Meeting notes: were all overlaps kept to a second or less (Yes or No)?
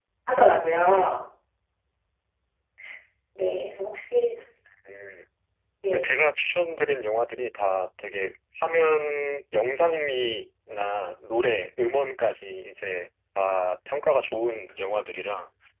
Yes